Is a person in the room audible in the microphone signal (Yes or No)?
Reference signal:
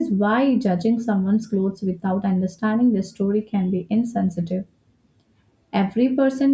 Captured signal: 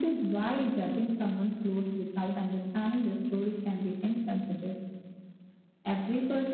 No